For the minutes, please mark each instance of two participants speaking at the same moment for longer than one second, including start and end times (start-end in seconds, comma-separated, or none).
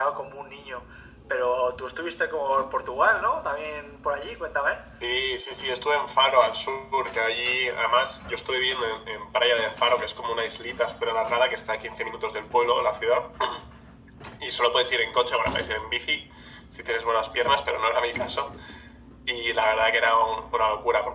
none